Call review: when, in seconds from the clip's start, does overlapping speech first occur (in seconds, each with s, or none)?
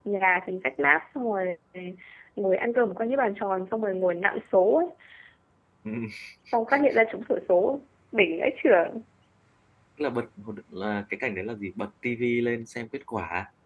none